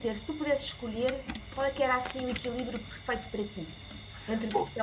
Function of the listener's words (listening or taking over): taking over